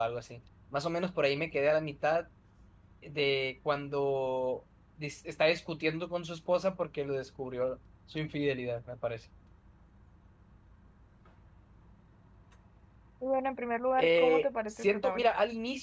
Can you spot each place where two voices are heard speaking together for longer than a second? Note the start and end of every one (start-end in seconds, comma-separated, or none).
14.0-15.3